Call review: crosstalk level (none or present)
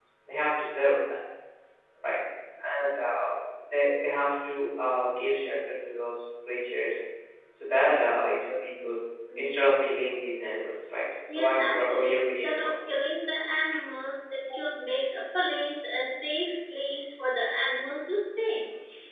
present